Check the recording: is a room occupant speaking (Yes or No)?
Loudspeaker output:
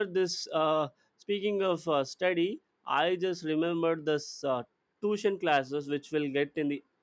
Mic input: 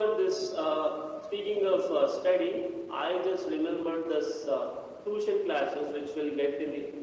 No